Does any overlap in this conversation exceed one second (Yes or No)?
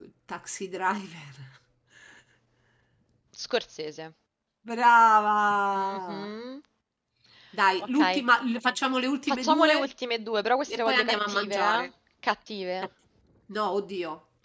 Yes